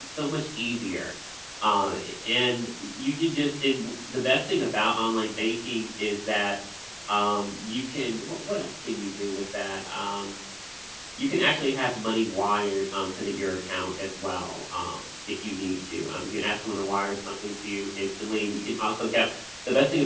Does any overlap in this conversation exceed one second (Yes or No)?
No